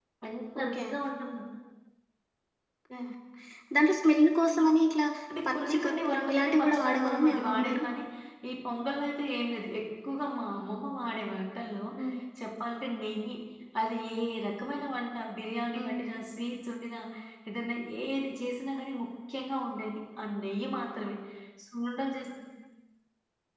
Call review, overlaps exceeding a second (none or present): present